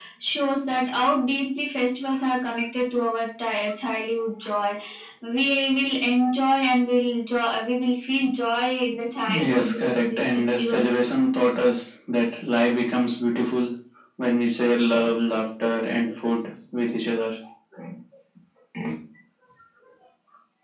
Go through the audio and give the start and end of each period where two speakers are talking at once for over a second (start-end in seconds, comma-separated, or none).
9.4-11.0